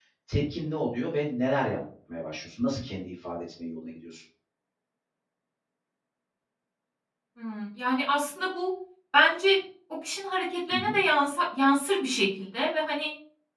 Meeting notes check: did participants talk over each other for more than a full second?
No

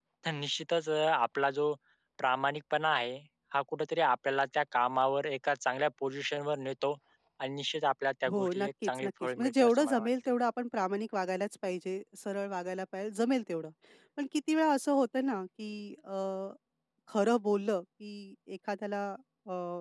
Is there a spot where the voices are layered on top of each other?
Yes, from 8.3 s

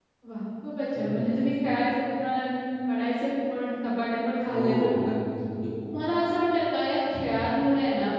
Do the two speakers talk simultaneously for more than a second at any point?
No

